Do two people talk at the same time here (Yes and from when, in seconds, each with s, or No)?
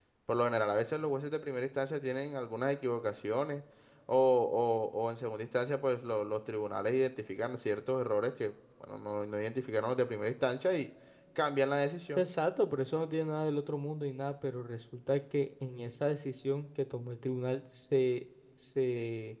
No